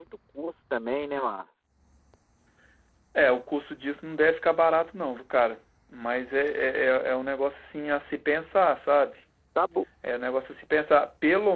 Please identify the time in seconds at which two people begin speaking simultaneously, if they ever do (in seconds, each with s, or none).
none